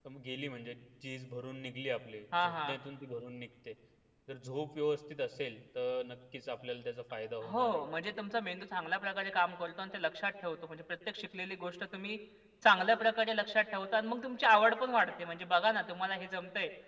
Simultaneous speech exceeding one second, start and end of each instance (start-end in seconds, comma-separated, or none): none